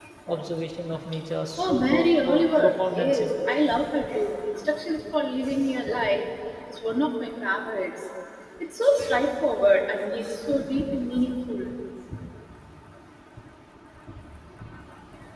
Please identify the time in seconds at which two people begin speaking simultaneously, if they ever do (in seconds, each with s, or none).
1.6 s